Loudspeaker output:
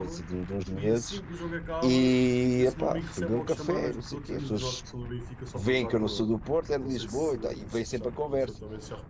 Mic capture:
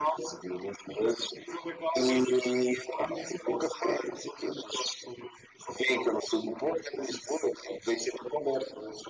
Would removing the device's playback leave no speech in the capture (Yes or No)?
Yes